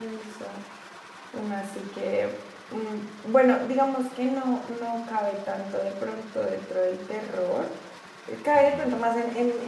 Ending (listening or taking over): listening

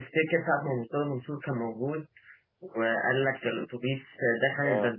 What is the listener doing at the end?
listening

